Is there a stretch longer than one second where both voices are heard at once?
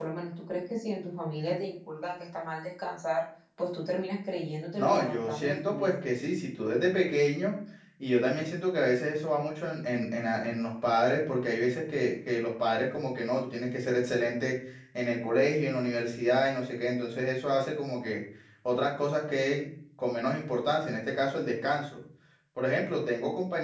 Yes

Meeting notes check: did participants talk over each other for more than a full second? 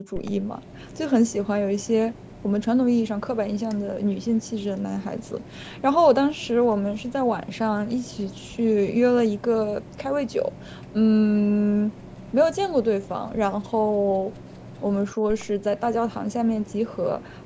No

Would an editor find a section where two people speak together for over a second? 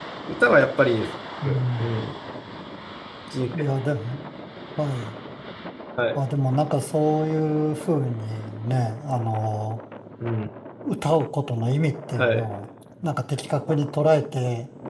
No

